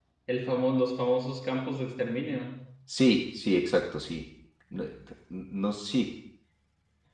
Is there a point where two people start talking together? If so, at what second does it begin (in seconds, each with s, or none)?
none